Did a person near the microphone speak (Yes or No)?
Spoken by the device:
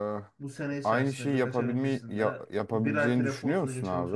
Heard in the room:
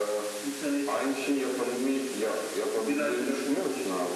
No